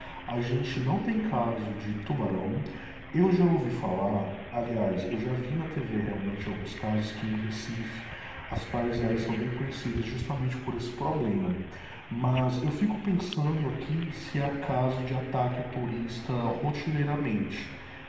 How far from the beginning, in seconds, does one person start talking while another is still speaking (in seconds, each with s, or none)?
none